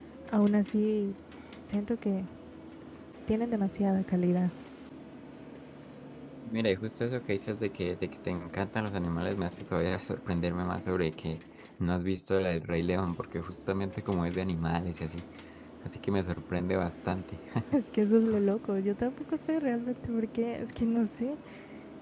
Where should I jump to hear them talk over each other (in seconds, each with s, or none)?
none